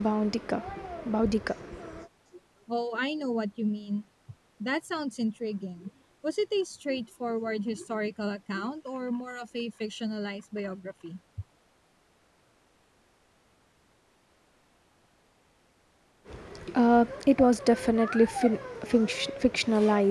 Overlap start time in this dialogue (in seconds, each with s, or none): none